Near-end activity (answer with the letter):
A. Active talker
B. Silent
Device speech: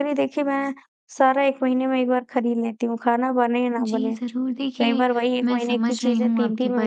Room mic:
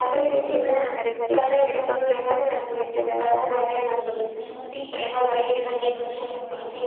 A